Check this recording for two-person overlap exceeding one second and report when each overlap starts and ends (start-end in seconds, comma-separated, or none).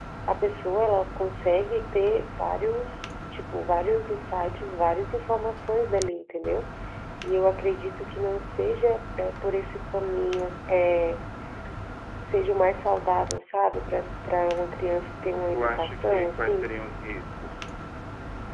15.5-16.8